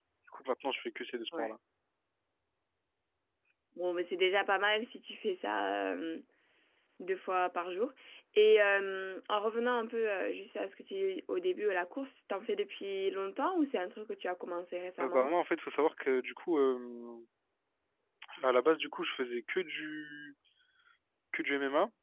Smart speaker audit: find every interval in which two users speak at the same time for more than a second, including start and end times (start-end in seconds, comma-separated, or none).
none